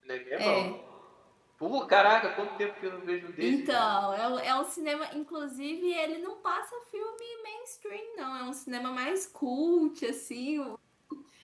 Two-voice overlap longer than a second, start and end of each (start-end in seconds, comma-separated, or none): none